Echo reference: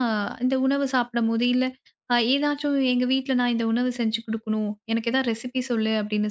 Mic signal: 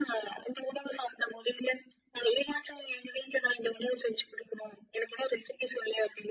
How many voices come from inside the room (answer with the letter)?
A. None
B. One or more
A